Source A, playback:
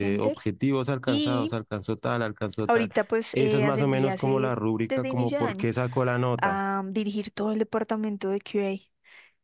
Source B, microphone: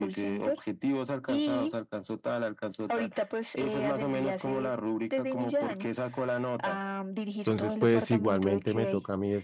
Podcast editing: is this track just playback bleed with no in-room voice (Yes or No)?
No